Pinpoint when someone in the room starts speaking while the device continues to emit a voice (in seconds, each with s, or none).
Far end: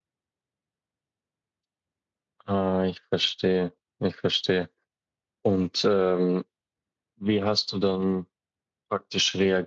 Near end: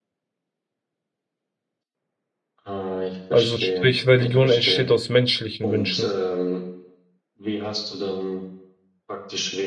3.3 s